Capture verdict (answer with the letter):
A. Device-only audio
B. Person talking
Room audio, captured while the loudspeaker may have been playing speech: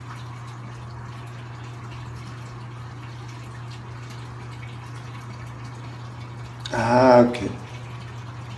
B